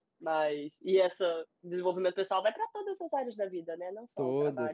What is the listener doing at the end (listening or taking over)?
listening